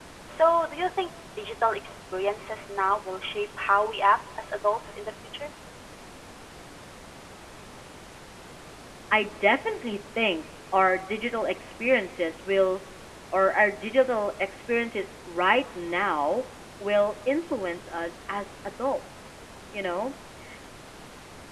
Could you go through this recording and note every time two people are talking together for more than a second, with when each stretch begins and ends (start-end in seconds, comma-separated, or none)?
none